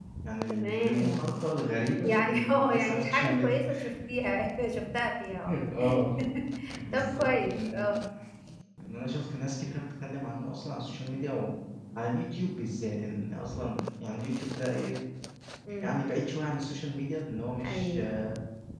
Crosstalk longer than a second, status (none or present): present